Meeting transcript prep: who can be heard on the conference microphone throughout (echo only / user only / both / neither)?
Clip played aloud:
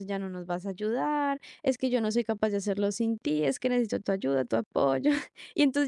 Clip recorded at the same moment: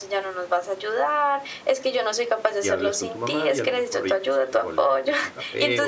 both